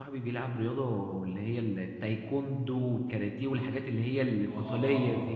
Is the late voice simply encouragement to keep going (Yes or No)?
No